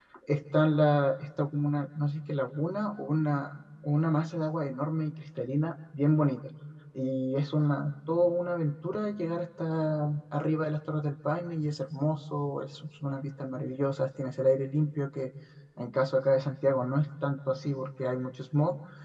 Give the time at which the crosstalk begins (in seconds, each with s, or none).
none